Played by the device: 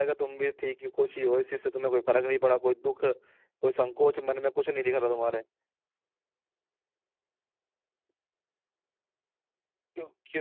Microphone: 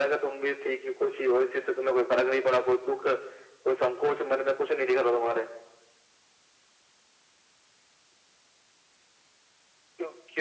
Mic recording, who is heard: echo only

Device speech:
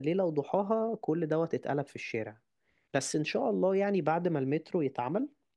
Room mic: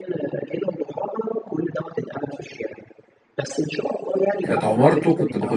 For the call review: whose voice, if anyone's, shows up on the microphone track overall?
both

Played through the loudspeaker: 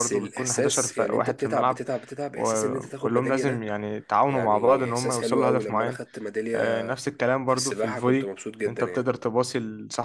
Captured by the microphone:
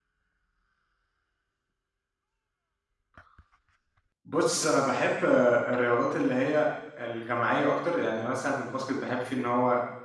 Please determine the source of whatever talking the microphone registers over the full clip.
user only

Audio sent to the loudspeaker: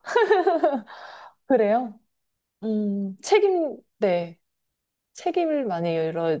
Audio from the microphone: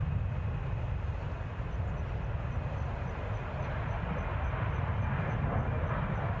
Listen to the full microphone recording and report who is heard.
neither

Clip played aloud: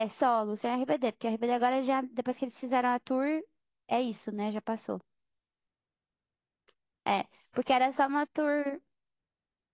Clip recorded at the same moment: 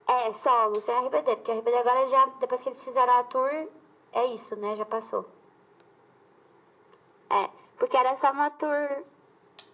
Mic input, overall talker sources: echo only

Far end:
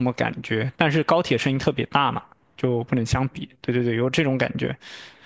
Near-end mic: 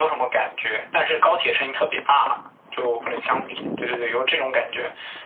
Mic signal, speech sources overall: echo only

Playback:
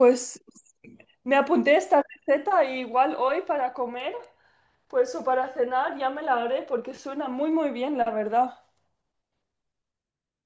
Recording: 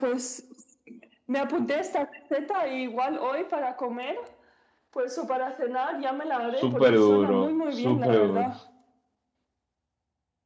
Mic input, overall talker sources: both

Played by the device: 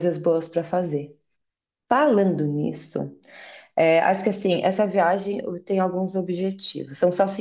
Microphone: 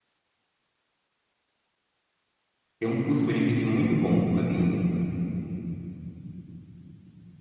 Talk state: user only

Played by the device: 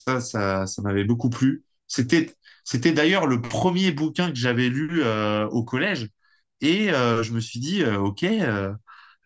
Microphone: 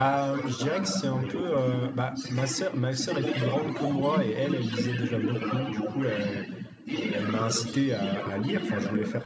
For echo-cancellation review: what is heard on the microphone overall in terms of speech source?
both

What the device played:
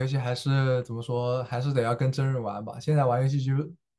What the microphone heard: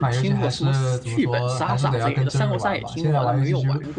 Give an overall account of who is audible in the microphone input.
both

